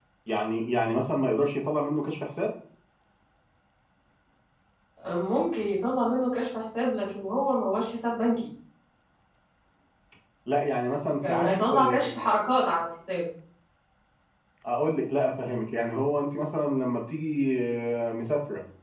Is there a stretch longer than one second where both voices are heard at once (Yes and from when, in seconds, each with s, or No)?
No